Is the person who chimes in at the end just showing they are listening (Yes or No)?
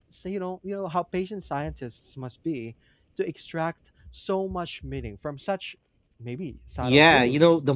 No